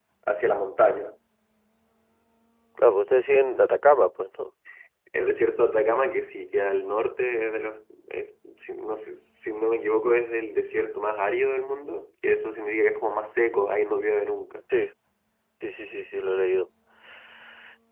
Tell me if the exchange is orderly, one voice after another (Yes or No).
Yes